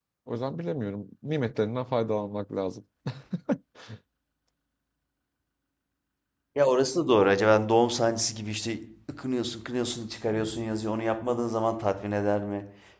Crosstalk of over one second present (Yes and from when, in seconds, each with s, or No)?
No